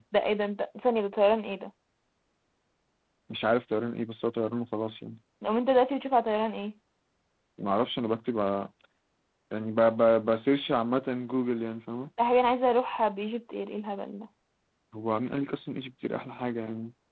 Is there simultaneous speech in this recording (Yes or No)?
No